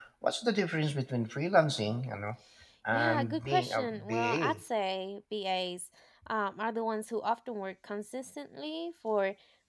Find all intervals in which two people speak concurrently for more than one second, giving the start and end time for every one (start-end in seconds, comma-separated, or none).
2.9-4.6